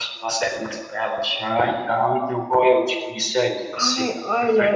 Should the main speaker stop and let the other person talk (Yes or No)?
Yes